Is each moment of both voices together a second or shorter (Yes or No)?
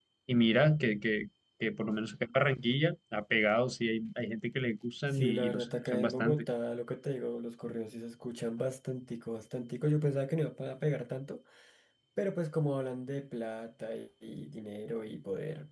No